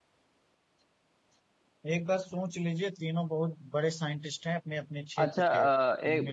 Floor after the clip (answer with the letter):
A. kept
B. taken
B